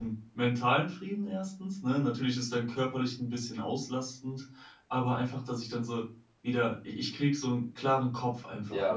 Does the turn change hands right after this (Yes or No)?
Yes